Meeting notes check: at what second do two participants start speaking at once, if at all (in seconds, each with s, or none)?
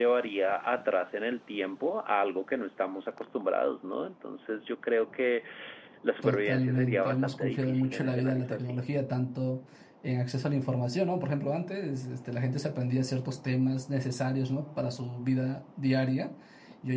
6.2 s